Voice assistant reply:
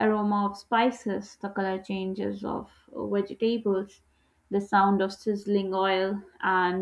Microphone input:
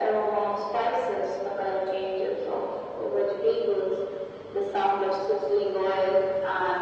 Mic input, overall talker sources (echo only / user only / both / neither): echo only